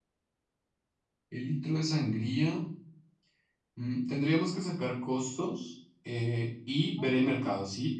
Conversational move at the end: listening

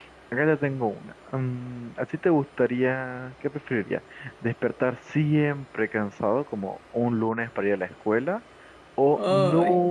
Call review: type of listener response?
listening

